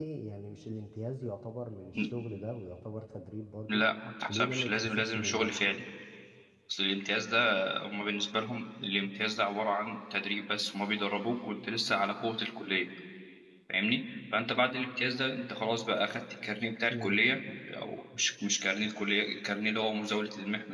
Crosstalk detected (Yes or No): Yes